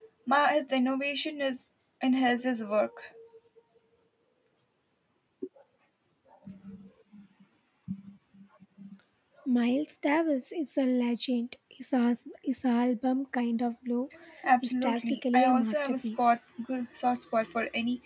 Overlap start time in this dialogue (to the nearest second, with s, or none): 15 s